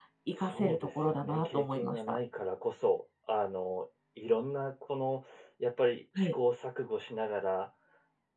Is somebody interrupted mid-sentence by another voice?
Yes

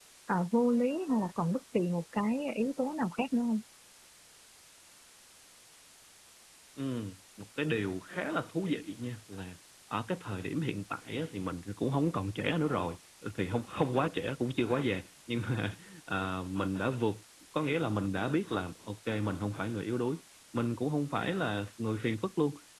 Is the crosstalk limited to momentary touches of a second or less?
Yes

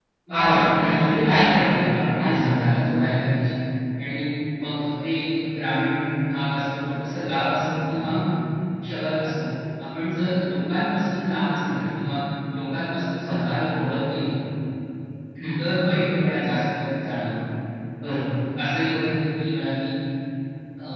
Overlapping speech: Yes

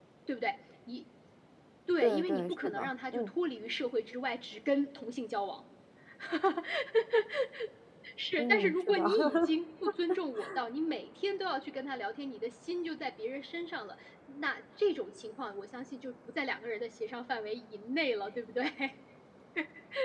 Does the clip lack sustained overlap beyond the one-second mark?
No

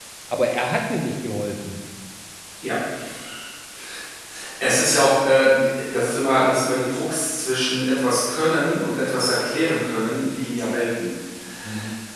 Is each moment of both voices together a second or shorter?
Yes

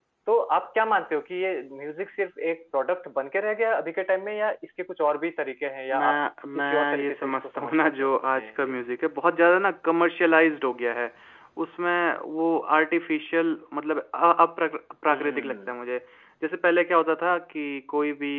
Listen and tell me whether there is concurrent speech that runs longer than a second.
Yes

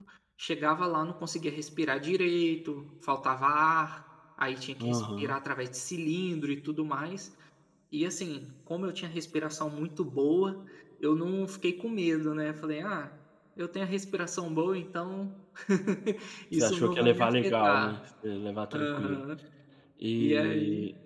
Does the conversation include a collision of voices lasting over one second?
Yes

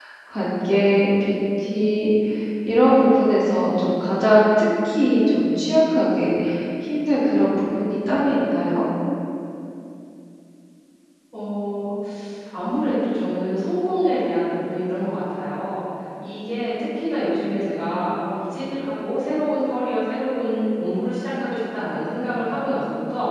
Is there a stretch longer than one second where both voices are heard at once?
No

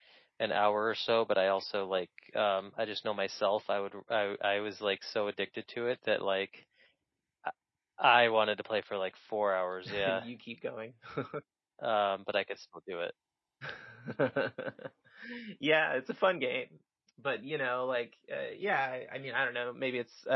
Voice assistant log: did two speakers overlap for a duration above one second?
No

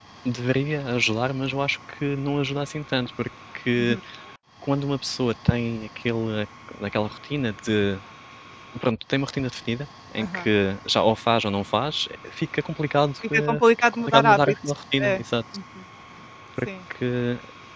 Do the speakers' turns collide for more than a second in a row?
Yes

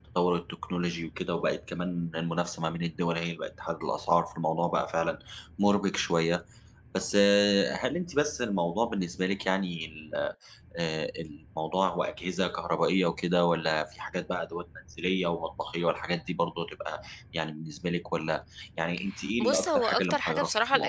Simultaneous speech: Yes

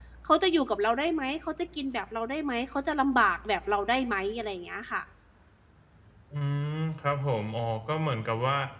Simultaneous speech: No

